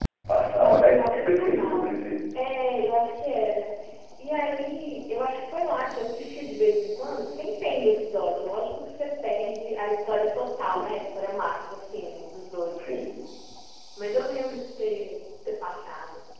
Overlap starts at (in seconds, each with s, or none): 0.5 s